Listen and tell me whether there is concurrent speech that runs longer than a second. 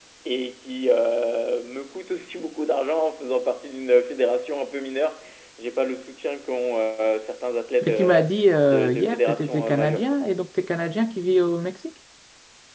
Yes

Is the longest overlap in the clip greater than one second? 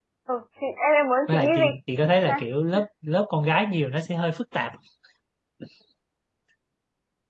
No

